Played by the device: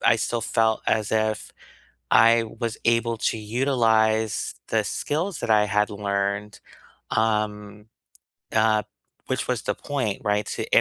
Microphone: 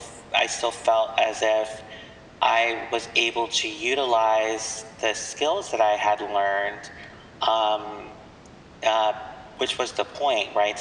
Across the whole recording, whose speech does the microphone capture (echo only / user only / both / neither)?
echo only